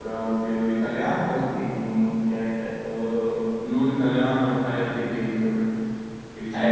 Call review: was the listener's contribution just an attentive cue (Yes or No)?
No